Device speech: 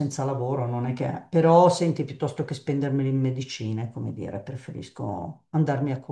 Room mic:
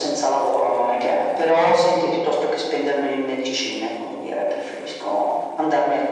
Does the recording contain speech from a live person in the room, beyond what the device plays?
No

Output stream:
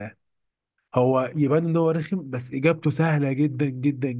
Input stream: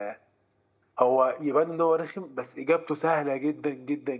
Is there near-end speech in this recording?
No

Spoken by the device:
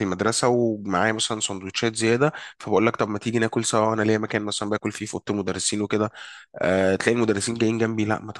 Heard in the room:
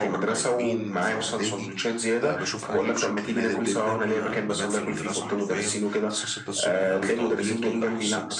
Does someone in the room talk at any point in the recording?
Yes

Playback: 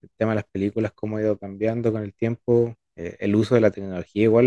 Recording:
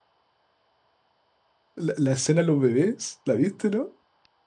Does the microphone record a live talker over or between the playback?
Yes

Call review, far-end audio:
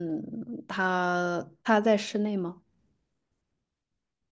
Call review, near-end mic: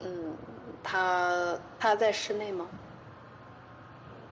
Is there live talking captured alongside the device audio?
No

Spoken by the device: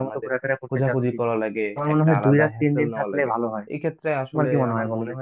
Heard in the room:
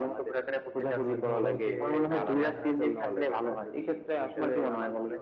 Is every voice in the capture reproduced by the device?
No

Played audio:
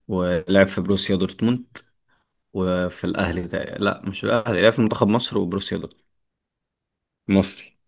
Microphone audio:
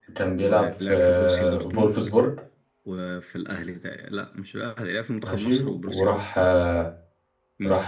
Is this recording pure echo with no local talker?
No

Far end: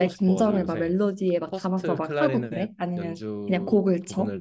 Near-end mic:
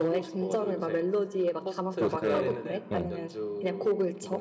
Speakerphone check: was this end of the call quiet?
No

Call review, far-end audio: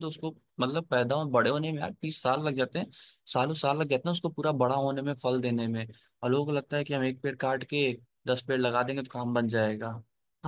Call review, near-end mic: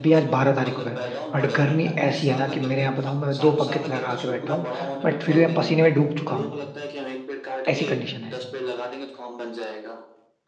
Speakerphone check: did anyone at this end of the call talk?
Yes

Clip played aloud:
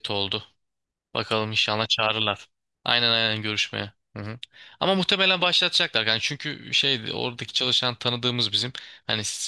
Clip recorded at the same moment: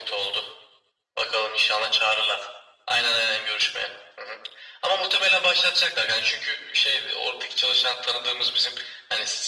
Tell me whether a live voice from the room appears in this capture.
No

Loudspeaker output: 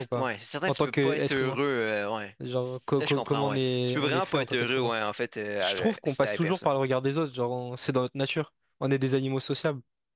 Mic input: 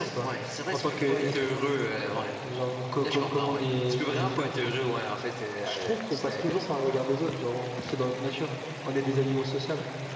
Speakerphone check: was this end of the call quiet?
Yes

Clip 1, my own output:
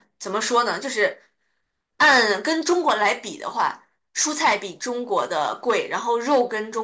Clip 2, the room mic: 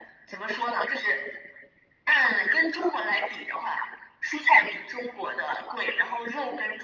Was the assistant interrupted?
No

